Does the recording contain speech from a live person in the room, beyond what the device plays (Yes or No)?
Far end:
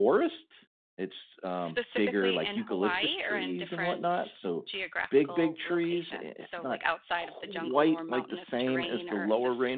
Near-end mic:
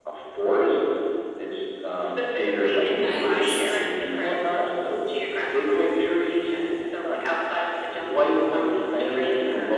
Yes